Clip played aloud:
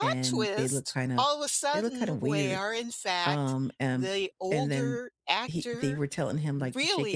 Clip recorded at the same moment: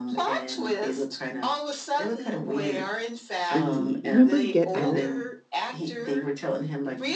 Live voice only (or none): the remember Get Out?